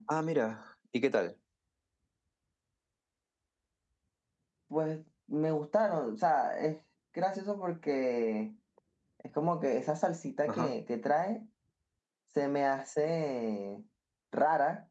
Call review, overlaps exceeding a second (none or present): none